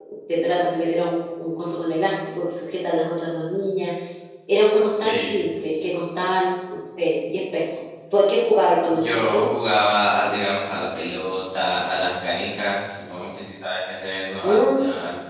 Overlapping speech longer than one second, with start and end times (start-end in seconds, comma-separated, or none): none